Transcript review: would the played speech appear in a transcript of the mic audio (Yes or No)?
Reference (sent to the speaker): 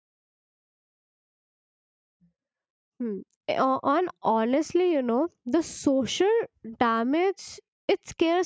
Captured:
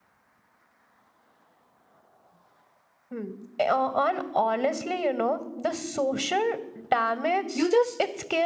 Yes